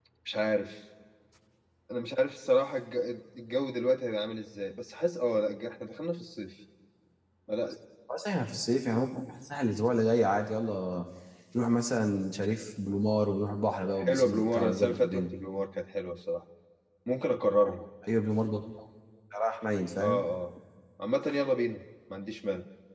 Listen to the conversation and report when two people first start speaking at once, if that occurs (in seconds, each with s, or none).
14.0 s